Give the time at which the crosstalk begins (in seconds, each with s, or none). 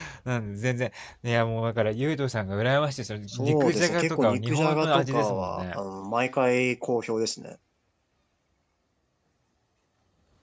3.3 s